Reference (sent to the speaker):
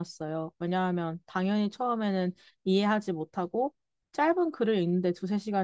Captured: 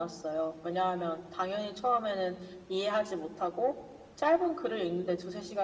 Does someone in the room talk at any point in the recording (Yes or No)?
No